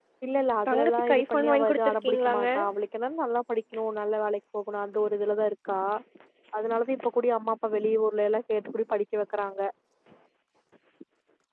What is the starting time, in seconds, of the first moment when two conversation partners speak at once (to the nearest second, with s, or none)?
1 s